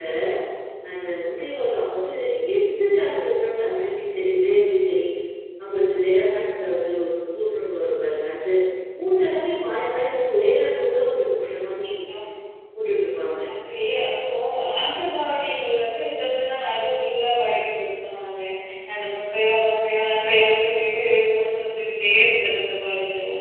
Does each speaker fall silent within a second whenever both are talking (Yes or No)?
Yes